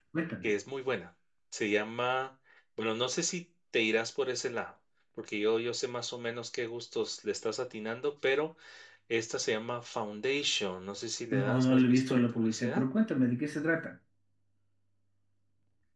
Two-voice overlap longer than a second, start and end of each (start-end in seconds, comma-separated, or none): 11.3-12.8